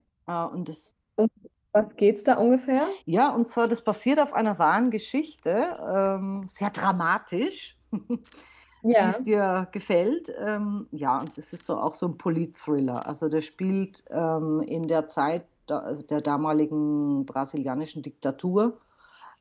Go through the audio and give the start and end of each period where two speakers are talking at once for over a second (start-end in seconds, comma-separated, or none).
none